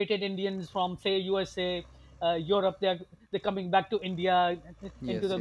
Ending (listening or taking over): listening